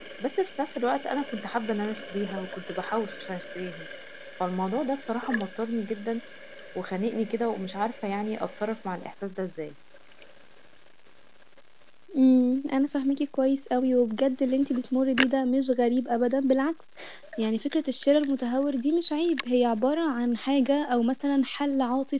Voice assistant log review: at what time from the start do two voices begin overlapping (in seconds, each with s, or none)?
none